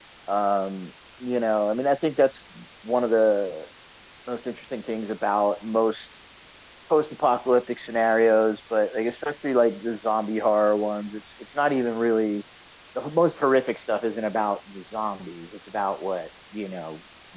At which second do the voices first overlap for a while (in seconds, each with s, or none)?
none